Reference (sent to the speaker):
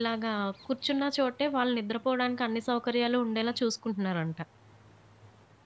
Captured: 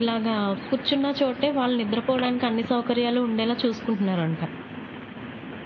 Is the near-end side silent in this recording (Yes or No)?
Yes